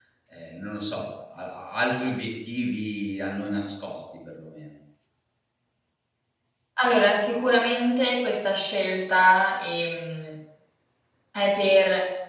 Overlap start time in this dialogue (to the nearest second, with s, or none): none